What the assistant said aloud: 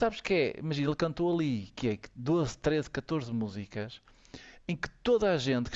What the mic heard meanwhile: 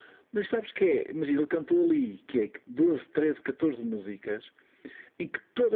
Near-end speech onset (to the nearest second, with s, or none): none